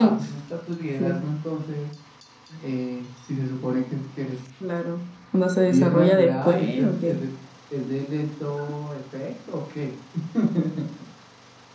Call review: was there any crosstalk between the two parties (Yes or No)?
Yes